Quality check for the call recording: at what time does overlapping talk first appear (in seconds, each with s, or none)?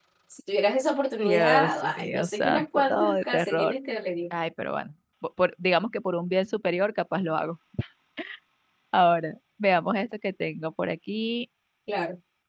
1.2 s